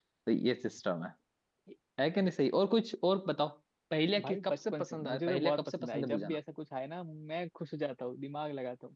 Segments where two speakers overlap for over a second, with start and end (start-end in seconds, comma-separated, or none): 4.2-6.4